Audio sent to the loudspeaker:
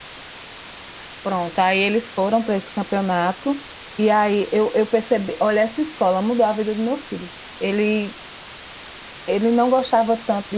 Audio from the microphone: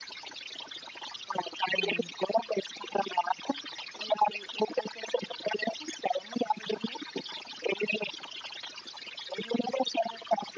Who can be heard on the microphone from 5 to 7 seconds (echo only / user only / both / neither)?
echo only